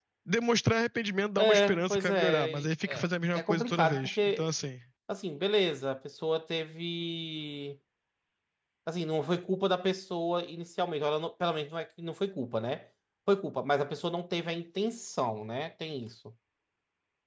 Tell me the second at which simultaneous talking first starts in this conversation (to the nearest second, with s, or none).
1 s